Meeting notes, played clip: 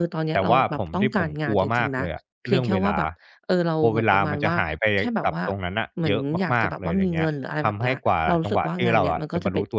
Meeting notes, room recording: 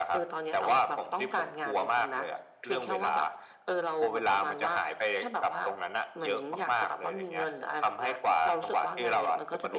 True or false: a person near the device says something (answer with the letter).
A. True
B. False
B